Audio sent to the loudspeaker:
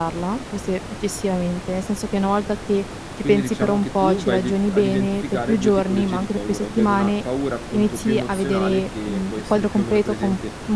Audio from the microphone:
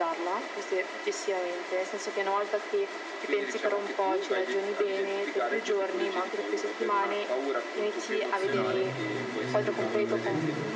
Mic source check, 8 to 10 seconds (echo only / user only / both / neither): both